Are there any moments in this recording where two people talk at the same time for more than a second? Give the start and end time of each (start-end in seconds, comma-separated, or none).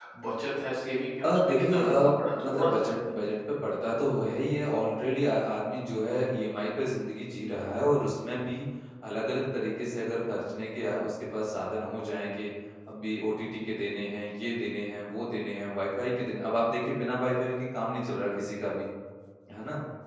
1.2-3.1